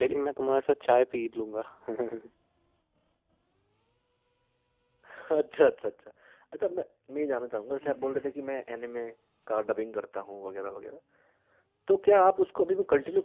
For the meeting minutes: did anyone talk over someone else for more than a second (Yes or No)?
No